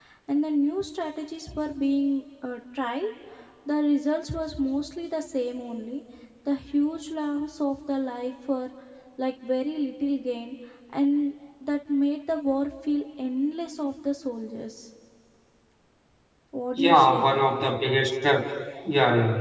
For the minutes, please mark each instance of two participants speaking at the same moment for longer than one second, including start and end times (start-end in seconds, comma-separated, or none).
none